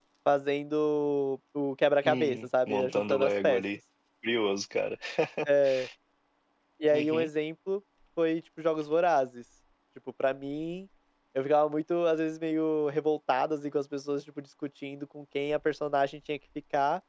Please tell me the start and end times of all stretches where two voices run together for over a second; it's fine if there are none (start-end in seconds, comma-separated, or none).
2.0-3.6